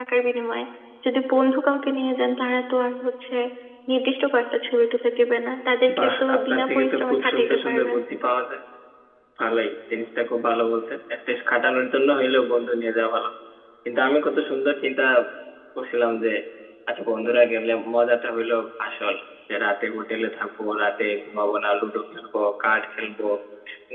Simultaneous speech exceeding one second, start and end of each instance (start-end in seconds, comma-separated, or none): 6.0-8.0